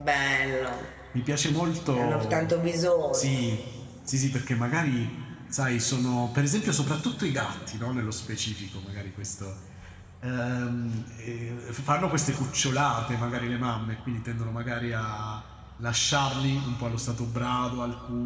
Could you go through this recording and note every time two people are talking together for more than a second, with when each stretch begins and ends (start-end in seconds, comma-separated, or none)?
none